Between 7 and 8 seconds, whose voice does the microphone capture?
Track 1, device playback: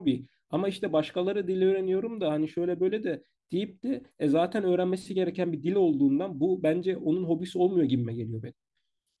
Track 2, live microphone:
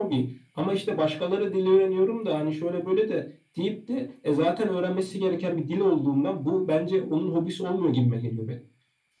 echo only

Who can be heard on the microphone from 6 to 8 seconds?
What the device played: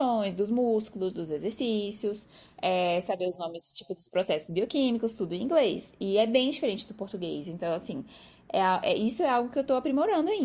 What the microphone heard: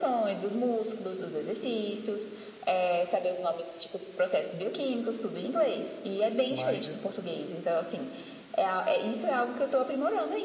both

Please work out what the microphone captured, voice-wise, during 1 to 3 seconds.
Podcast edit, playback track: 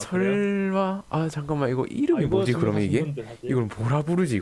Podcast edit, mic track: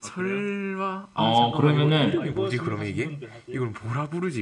both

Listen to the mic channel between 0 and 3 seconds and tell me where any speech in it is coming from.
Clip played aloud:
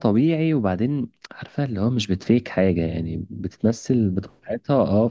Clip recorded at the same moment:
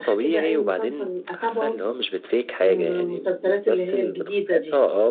both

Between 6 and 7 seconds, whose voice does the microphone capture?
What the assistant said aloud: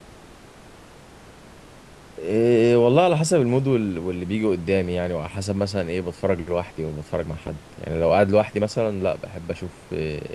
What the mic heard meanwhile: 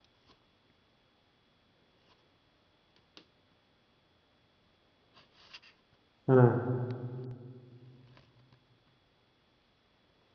user only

